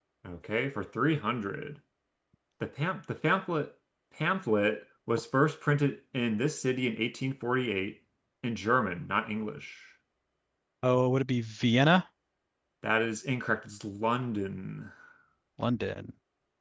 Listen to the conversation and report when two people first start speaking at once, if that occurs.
none

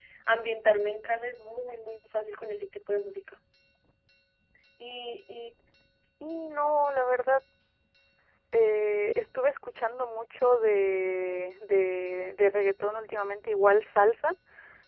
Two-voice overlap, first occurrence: none

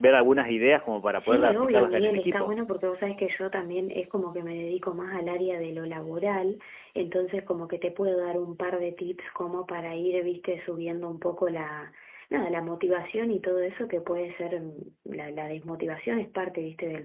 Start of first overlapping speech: 1.2 s

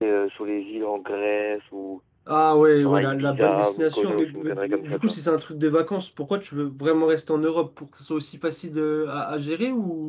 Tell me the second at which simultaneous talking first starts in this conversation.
2.8 s

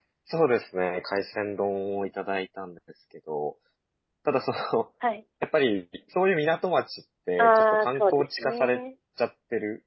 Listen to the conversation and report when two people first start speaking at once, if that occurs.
7.4 s

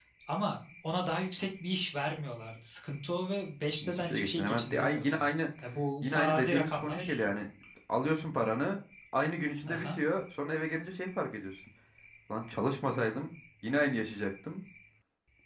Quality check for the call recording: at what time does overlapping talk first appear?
3.8 s

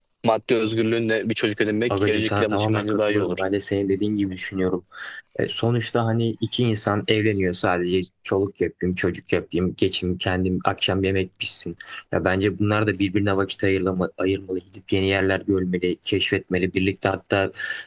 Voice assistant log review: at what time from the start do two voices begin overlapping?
1.9 s

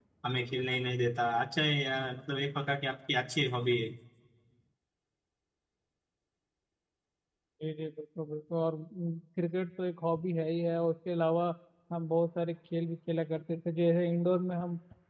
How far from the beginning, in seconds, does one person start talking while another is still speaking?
none

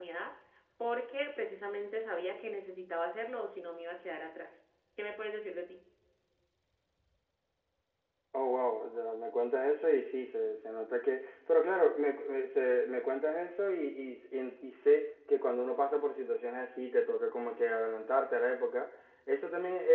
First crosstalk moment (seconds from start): none

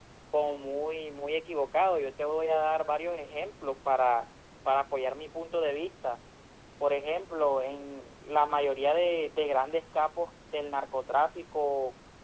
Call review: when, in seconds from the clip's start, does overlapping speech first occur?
none

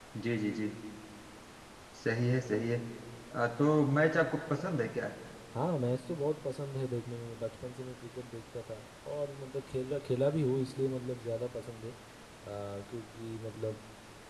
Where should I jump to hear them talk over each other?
none

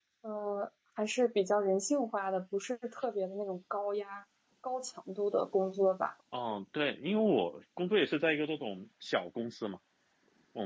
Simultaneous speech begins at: none

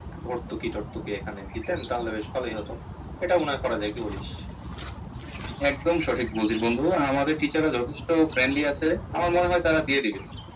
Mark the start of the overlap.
none

